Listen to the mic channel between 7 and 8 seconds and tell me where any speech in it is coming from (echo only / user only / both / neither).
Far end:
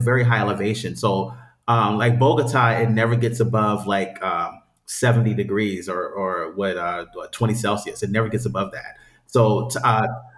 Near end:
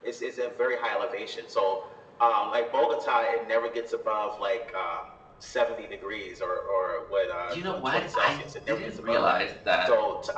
both